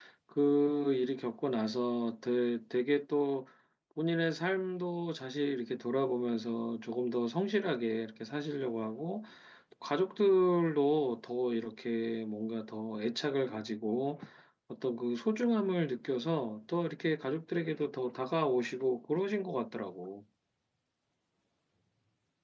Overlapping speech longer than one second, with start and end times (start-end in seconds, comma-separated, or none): none